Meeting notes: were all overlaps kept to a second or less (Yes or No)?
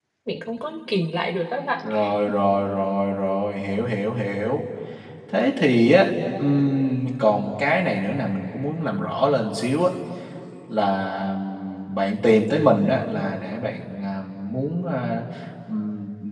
Yes